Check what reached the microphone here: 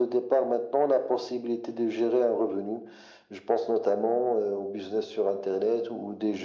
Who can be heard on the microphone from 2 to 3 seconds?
echo only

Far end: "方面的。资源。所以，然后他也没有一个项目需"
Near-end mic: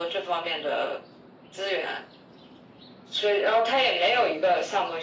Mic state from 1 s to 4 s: echo only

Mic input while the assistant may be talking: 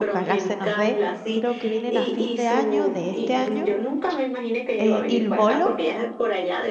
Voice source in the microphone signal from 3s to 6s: both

